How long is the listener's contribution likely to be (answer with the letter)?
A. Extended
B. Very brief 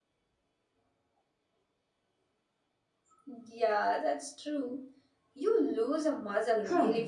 A